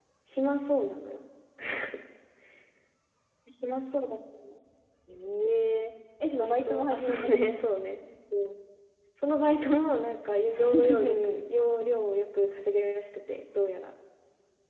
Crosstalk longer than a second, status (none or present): present